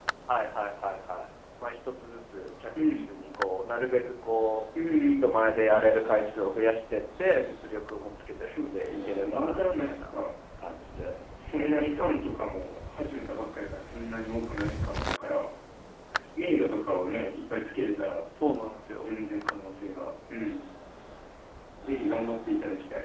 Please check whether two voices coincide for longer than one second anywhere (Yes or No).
Yes